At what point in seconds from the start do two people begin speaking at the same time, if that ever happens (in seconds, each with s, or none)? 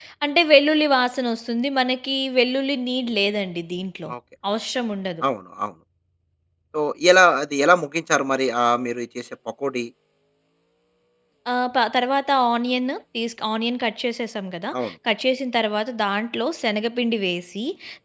none